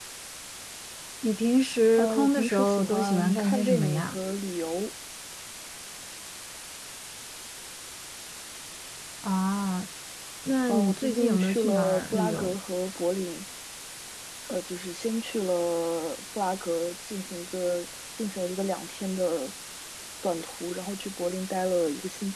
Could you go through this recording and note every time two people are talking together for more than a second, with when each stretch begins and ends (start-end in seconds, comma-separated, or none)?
2.0-4.2, 10.7-12.6